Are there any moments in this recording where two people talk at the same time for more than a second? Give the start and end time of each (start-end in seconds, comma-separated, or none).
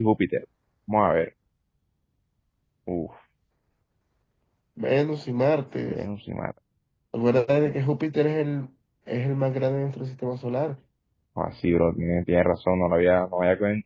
none